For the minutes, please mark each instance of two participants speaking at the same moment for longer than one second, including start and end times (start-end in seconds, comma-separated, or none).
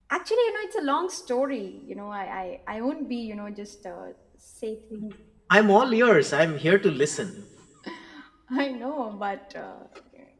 none